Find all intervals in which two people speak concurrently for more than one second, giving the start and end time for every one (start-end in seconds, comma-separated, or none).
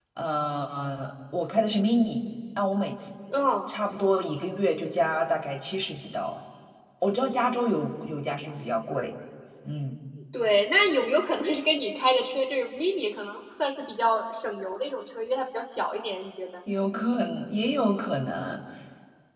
none